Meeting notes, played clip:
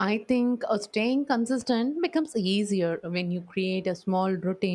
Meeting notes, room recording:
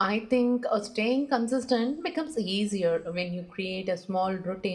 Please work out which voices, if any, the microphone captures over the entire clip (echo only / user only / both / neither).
echo only